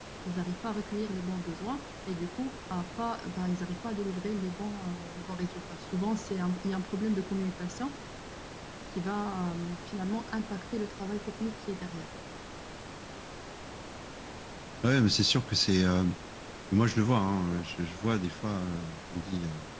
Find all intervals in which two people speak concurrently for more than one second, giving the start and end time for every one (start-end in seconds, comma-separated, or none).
none